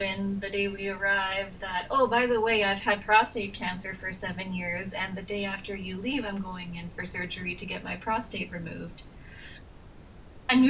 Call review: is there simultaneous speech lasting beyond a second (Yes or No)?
No